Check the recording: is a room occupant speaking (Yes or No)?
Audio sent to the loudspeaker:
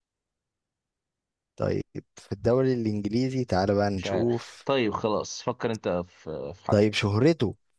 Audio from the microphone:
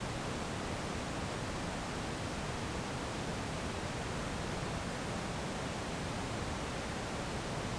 No